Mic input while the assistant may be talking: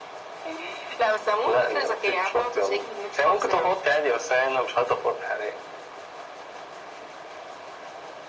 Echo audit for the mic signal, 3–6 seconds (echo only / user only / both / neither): echo only